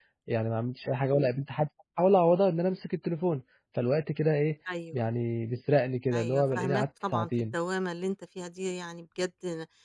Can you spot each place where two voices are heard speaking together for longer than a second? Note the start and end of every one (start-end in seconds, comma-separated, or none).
6.1-7.6